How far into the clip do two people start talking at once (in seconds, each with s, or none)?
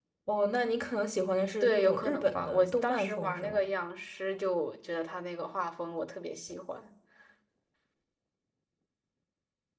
1.6 s